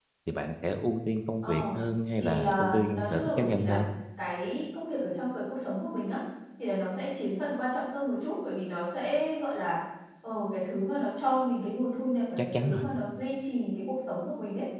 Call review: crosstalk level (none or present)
present